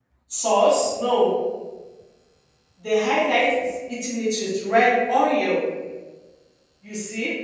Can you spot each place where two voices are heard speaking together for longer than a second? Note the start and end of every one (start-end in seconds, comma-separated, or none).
none